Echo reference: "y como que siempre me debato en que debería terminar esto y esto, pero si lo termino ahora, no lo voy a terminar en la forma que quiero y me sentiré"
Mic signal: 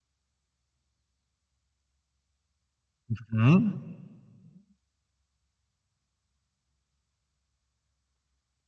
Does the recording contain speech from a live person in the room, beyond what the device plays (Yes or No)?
Yes